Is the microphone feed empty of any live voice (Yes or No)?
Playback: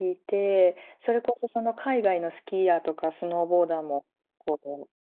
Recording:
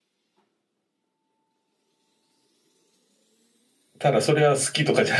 No